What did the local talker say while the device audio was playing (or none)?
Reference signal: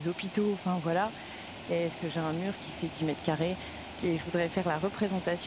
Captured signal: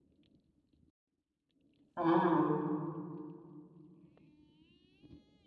Mmh.